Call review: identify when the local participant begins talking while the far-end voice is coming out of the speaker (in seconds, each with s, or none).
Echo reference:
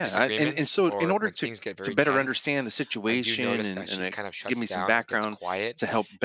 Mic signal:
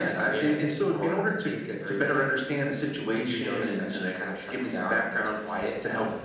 none